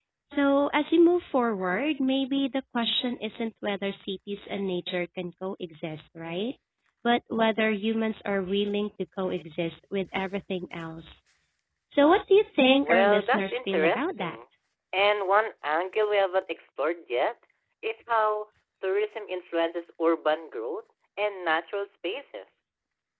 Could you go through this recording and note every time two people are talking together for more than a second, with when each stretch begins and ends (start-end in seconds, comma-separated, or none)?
12.8-14.3